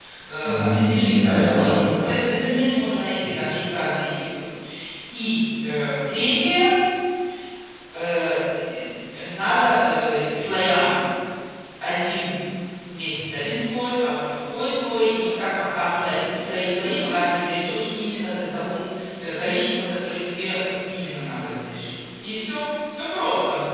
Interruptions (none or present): present